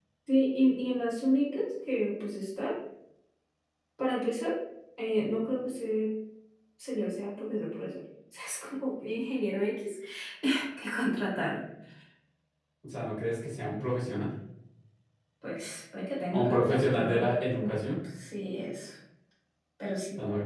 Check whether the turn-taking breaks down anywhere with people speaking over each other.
Yes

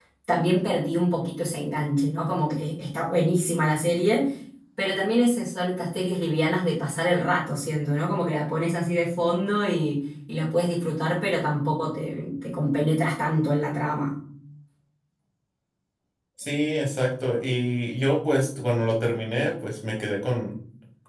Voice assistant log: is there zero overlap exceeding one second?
Yes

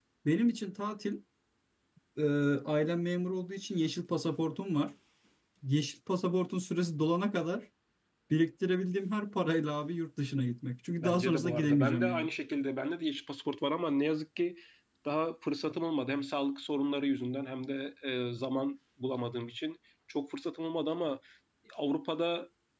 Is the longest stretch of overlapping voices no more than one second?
No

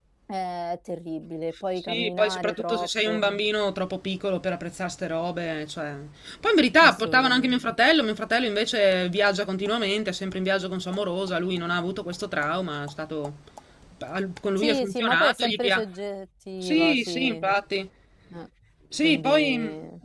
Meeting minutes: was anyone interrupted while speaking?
Yes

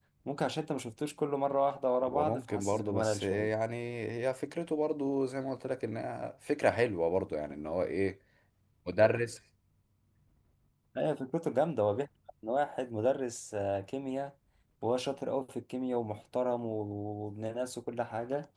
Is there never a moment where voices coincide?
No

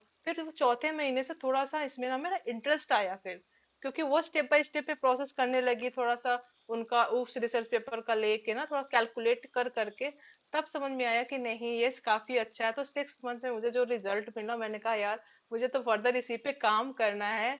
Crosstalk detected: No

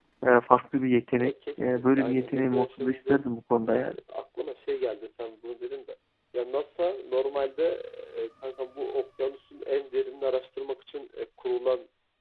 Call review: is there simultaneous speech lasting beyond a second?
Yes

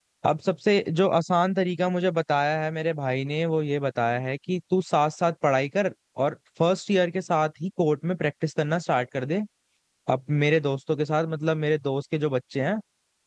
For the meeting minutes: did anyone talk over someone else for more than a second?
No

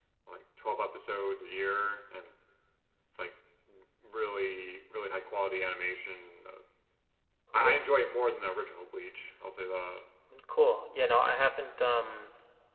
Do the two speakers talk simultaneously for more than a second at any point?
No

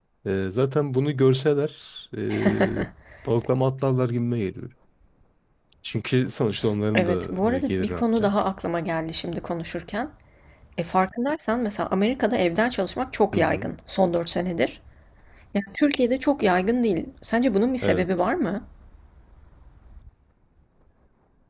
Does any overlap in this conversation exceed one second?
Yes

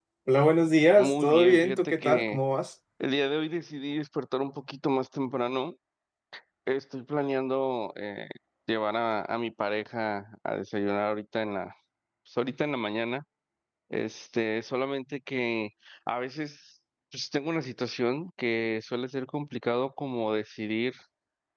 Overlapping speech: Yes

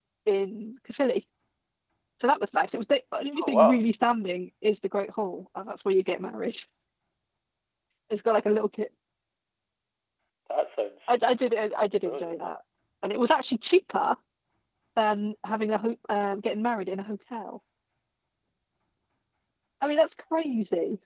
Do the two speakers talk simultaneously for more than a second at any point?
No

